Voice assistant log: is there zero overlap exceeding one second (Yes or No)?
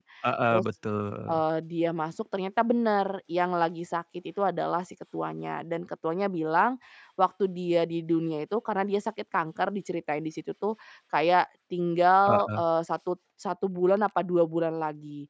Yes